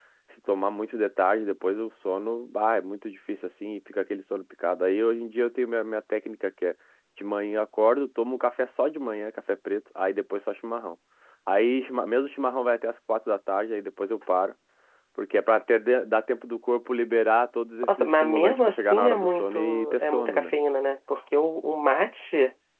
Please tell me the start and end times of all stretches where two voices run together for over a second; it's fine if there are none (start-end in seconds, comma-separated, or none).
17.9-20.5